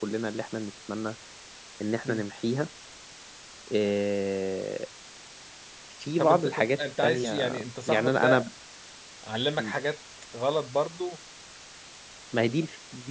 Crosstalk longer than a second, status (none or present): present